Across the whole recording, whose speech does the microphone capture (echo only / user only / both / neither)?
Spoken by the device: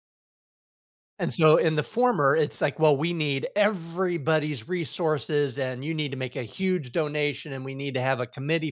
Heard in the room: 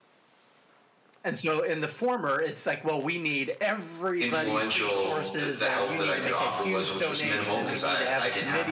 both